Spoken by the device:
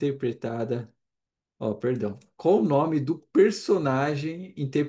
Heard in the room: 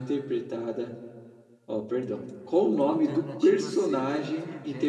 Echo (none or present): present